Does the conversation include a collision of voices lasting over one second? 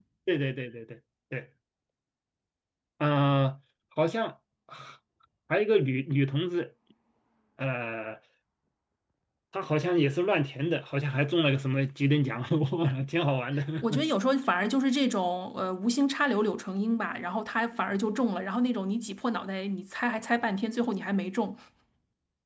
No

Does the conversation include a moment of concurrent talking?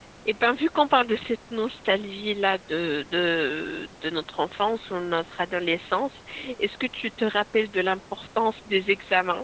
No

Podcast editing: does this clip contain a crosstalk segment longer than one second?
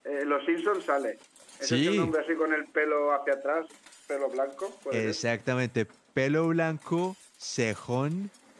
No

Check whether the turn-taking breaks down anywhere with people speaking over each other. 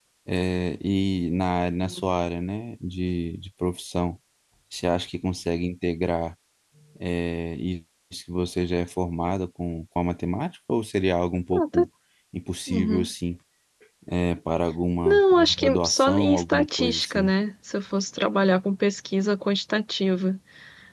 Yes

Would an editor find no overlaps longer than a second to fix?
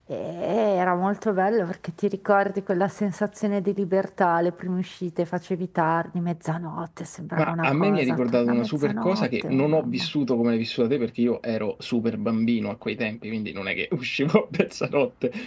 No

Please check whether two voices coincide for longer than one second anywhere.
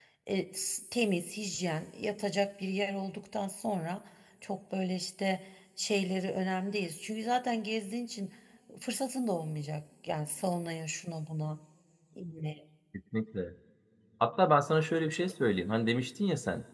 No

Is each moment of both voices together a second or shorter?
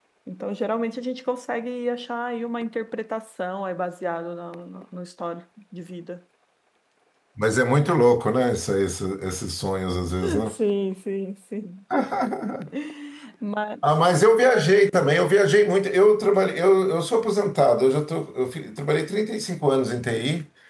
Yes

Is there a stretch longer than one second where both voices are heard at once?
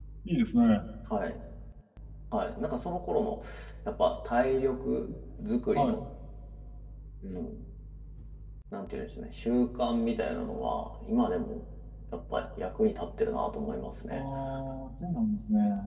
No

